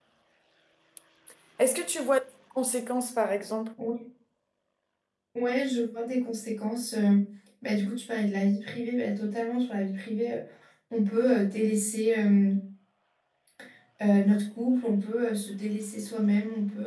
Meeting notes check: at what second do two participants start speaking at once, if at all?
none

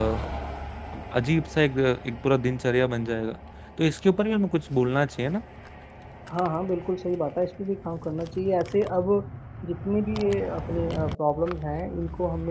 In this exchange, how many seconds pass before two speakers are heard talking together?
none

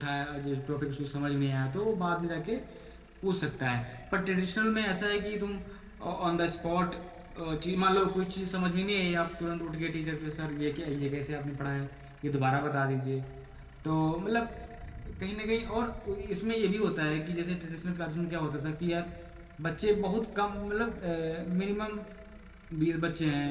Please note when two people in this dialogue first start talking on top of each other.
none

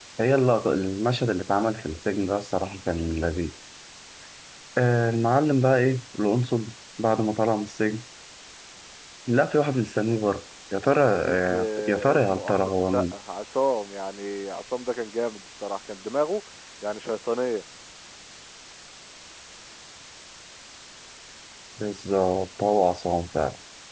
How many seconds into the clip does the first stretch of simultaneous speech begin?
11.2 s

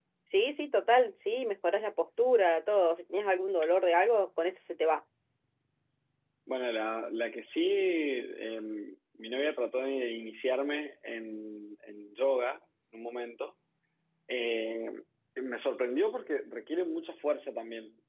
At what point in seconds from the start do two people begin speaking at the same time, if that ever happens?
none

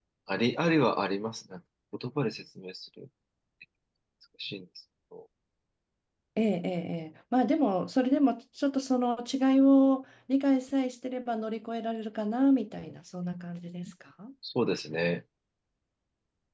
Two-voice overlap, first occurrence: none

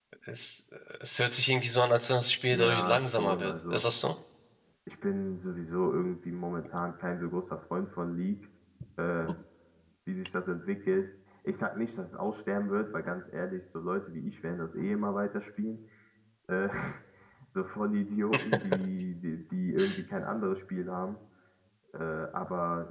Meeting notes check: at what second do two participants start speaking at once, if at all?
2.5 s

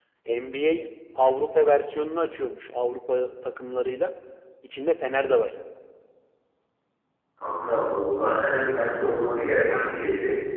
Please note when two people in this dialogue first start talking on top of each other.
none

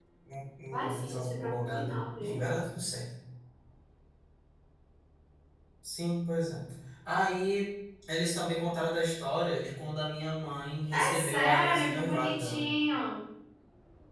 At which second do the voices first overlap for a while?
0.9 s

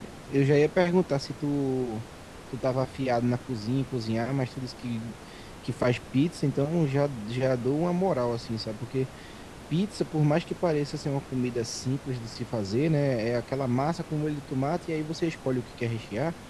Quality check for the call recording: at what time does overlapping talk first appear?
none

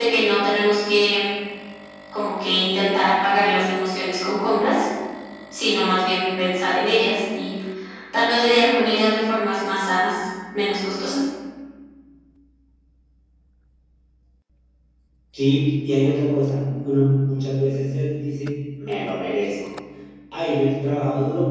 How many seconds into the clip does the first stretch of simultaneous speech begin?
none

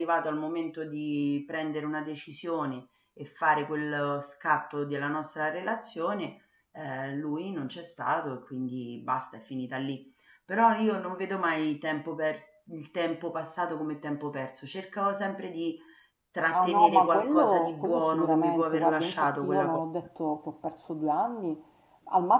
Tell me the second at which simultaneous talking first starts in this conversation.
16.5 s

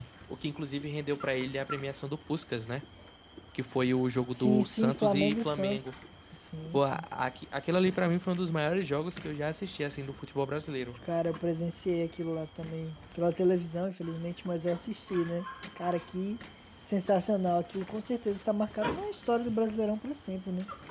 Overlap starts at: 4.3 s

